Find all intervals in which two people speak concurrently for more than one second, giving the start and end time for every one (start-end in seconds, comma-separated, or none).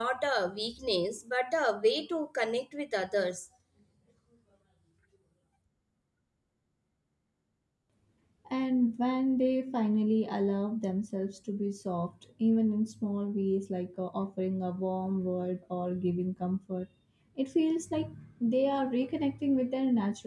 none